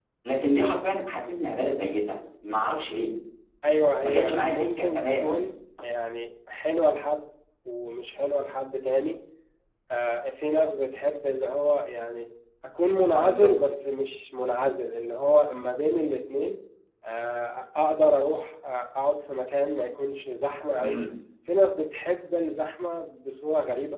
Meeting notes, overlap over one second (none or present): present